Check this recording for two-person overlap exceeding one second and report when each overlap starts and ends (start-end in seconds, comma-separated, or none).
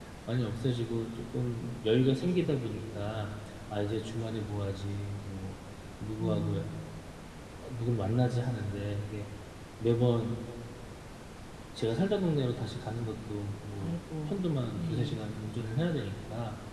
none